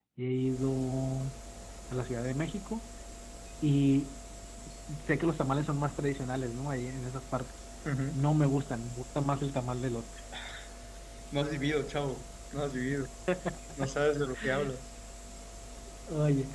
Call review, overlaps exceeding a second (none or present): none